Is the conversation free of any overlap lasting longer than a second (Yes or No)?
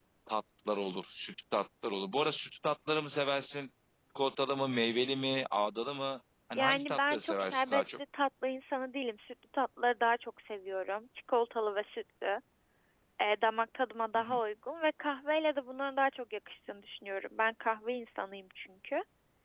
No